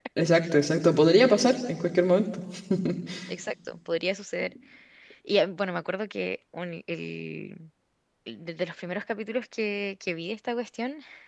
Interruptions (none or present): none